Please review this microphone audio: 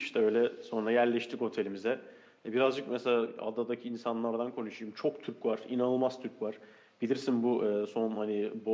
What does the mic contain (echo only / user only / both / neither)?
echo only